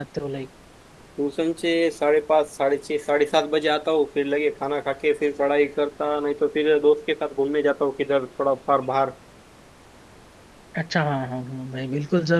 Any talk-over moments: No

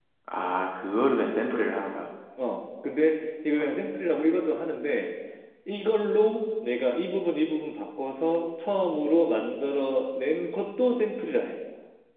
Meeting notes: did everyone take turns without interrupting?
Yes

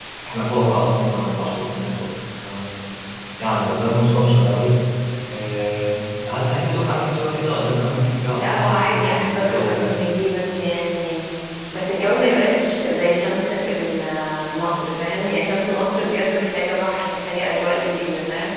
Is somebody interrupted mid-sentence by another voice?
Yes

